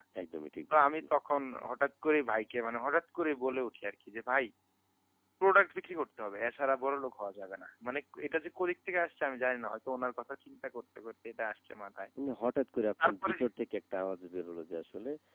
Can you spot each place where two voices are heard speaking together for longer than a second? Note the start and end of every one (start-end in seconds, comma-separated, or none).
none